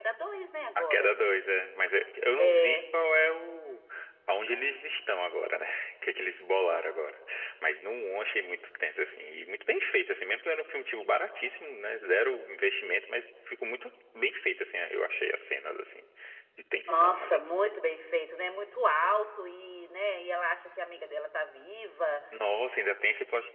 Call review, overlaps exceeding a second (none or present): none